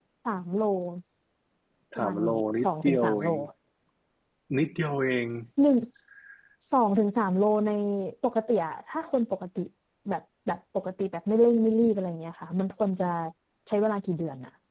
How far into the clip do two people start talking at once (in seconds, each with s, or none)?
2.0 s